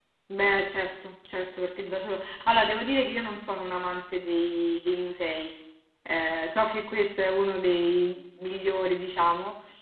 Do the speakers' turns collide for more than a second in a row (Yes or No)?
No